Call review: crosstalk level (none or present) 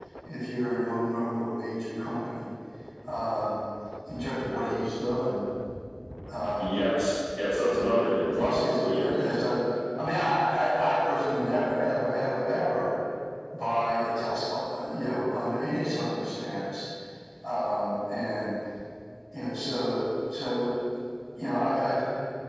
present